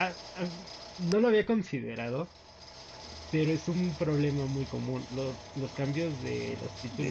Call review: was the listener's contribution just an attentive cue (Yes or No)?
No